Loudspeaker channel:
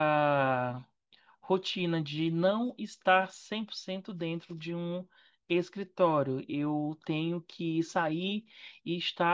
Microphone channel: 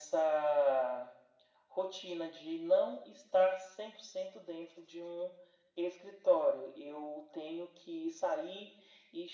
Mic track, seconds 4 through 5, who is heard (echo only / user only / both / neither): echo only